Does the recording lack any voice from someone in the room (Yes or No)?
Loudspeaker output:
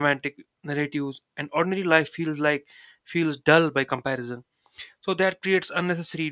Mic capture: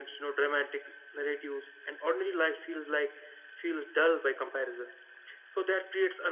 Yes